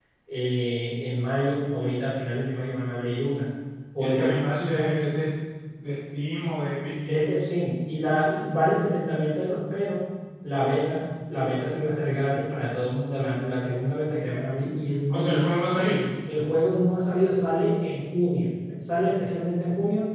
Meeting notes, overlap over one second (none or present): present